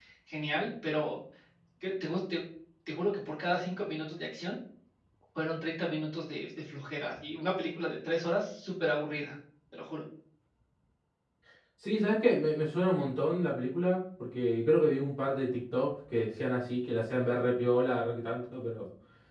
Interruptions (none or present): none